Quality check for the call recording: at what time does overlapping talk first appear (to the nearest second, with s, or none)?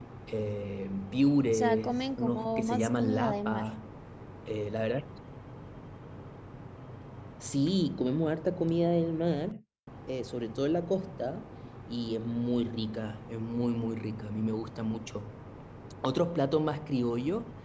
2 s